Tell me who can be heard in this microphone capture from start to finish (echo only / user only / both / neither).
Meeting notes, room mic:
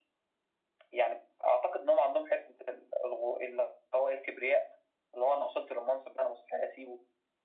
echo only